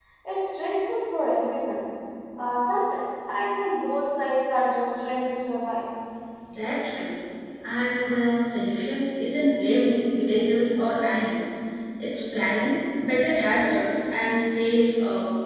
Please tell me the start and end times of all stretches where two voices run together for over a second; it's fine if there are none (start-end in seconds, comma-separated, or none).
none